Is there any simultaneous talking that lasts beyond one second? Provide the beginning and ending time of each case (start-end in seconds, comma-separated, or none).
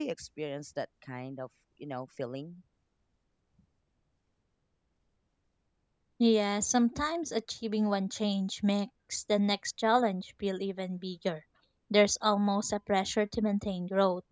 none